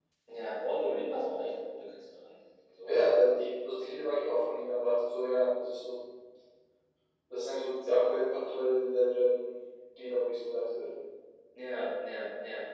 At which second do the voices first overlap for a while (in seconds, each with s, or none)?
none